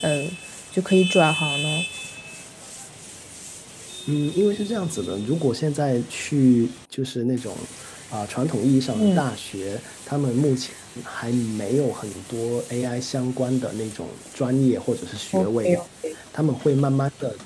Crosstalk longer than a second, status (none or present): none